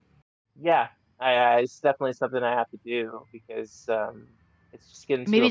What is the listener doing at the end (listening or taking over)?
taking over